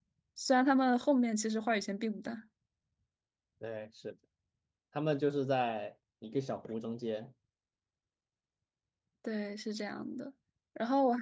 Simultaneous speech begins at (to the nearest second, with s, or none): none